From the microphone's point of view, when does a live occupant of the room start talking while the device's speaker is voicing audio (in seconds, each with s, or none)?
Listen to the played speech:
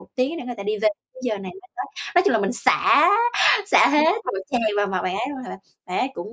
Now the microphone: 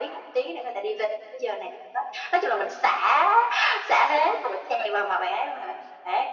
none